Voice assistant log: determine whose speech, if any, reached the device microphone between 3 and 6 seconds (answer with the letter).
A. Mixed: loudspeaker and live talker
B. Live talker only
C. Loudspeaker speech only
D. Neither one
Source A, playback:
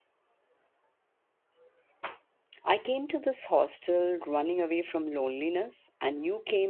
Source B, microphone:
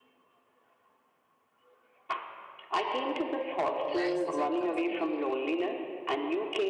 A